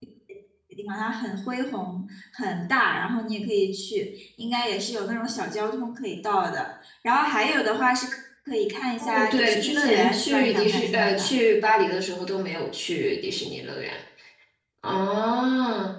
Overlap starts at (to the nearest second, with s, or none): 9 s